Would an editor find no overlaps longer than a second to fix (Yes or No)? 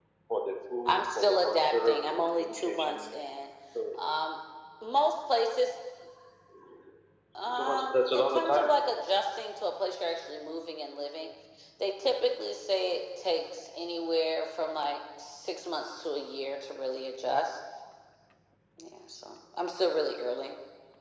No